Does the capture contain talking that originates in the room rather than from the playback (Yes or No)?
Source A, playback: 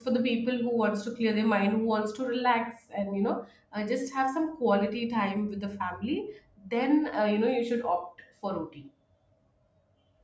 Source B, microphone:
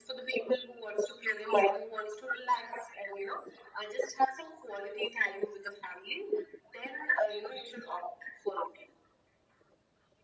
No